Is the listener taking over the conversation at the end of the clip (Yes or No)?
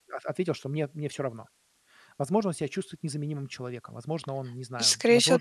Yes